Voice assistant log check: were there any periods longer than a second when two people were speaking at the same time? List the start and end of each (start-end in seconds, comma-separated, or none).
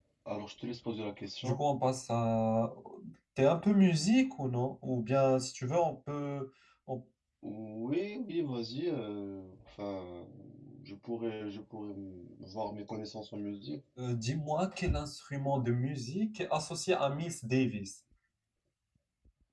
none